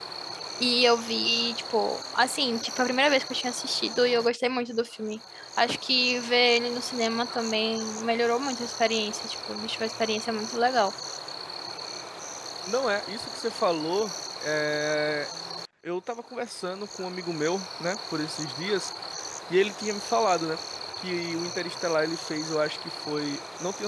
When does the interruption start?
none

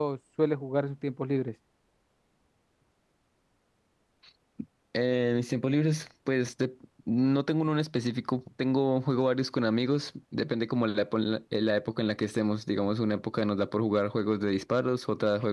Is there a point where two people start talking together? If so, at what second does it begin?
none

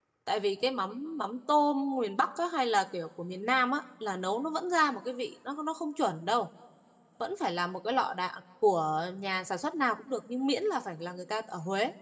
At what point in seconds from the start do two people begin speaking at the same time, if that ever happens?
none

